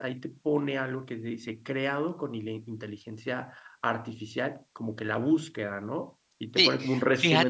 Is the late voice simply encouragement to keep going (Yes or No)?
No